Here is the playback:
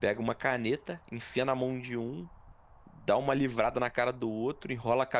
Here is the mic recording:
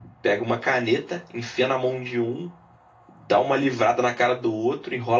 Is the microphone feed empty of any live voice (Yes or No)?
Yes